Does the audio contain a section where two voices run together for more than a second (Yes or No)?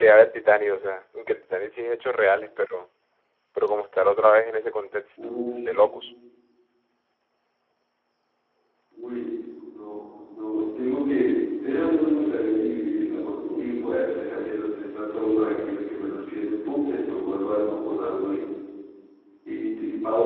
No